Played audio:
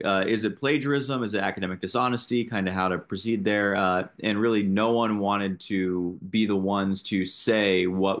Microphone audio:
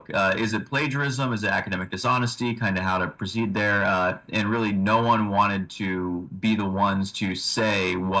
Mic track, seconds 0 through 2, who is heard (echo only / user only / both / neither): echo only